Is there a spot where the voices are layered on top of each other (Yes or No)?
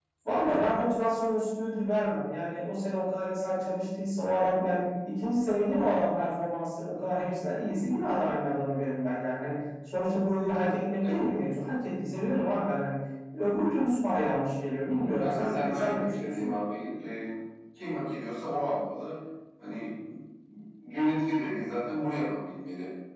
Yes